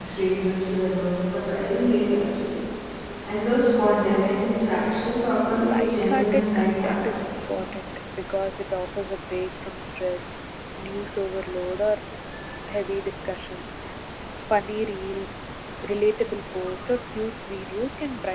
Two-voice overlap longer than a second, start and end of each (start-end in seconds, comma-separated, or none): 5.6-7.2